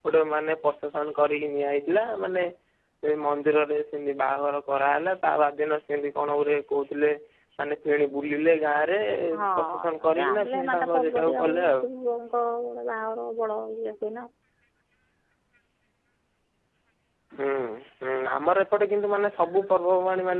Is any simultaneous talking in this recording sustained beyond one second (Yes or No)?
Yes